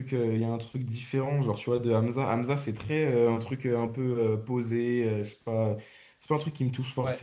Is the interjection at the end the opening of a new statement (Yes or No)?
No